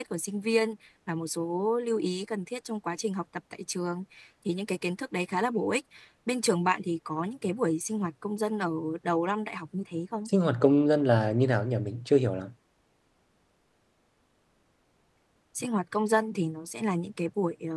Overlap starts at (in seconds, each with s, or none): none